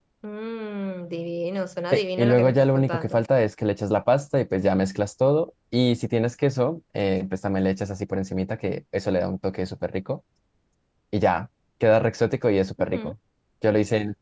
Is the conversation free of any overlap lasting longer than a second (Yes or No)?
No